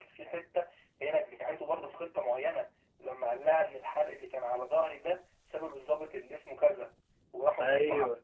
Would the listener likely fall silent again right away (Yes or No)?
Yes